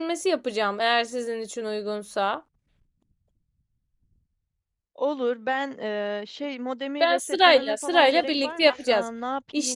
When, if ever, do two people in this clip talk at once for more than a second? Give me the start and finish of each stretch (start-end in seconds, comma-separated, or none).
7.0-9.1